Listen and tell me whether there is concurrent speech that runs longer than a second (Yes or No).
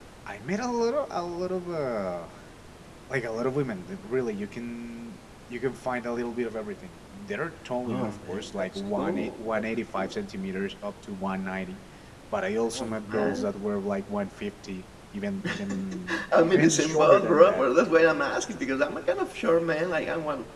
Yes